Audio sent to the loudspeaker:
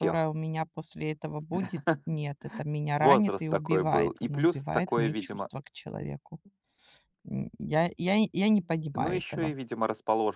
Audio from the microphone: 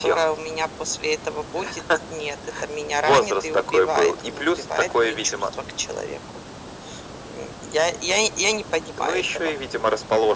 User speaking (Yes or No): No